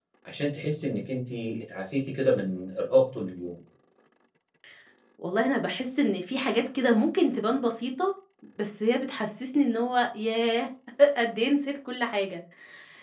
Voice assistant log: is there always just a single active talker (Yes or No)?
Yes